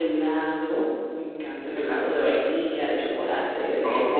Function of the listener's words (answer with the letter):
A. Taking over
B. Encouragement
A